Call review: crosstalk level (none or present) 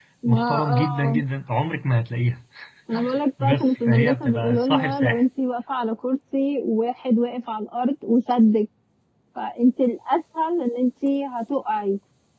present